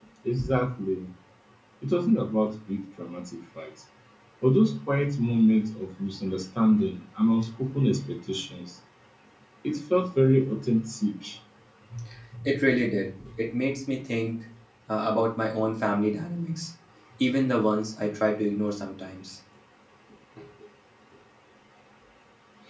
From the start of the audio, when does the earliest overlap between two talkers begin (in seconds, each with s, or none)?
none